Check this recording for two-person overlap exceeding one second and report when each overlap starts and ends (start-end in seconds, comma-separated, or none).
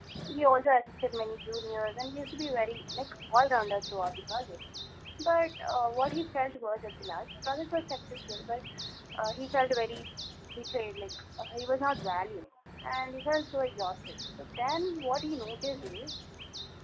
none